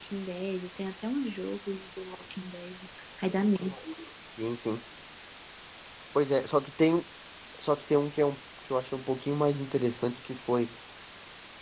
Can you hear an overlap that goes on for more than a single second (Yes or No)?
No